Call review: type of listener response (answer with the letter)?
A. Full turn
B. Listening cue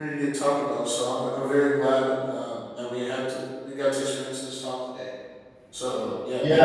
A